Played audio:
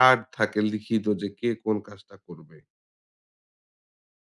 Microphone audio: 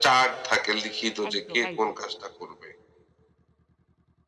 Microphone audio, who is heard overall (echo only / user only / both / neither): both